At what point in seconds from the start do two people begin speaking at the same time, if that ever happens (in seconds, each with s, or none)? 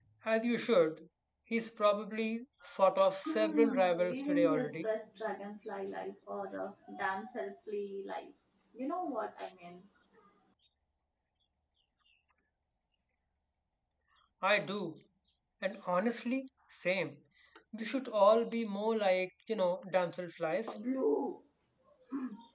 3.2 s